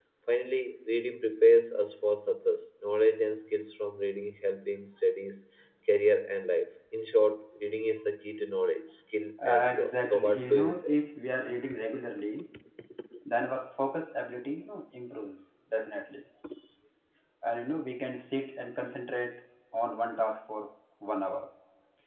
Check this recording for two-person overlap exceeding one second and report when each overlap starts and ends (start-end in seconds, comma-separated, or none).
9.4-11.0